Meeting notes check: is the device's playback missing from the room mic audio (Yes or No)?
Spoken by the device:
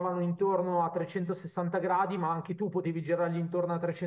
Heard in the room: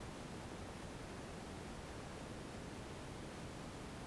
Yes